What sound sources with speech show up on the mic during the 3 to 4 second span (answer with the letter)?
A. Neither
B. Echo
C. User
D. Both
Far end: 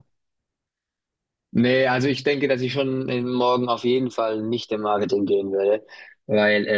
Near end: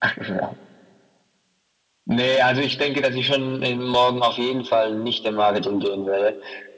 B